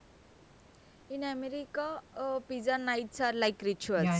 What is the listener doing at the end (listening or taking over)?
taking over